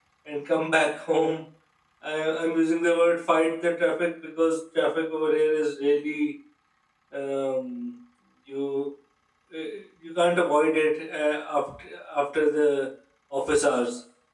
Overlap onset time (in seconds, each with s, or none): none